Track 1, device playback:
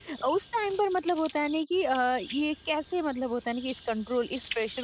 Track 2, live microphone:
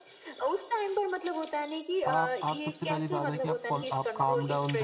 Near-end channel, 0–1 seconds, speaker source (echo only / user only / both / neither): echo only